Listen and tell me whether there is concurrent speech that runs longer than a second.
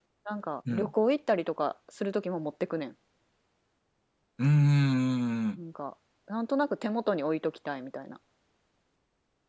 No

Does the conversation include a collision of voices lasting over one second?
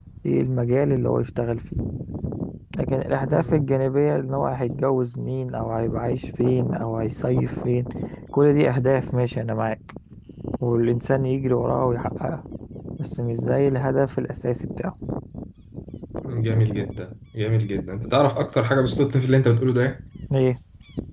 No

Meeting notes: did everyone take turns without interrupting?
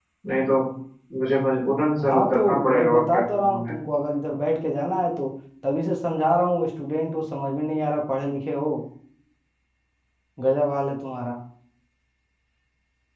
No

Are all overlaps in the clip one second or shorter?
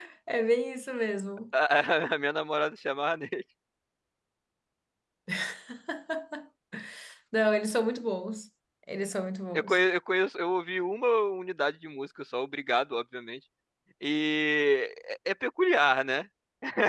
Yes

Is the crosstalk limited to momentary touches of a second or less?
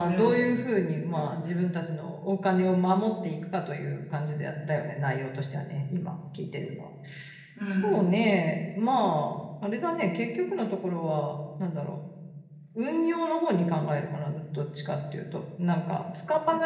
Yes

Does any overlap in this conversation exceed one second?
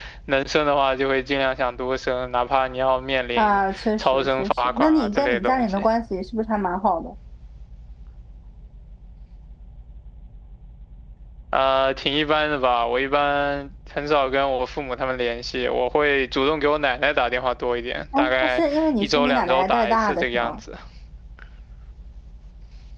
Yes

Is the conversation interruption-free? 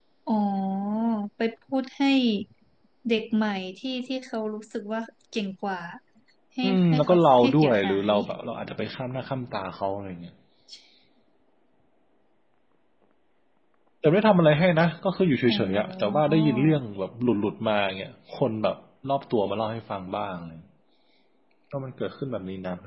No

